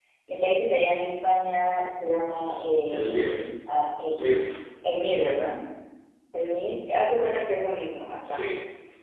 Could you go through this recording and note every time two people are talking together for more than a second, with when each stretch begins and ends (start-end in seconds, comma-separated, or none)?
none